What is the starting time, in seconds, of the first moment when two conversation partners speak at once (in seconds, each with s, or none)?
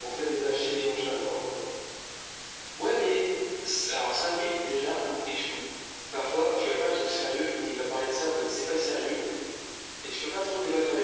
none